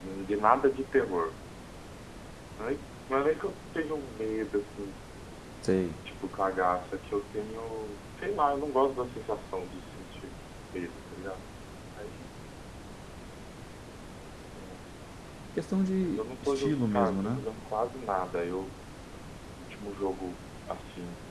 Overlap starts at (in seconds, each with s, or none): 16.0 s